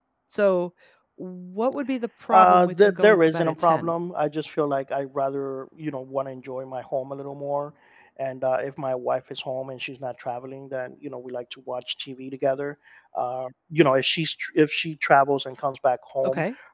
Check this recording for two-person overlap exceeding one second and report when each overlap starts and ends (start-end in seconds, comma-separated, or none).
2.3-3.9